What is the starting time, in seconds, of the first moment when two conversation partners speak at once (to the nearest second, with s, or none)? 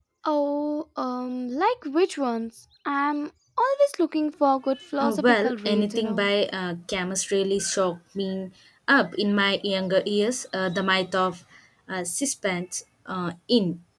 5 s